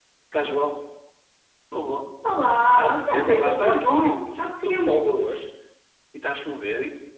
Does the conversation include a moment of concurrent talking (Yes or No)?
Yes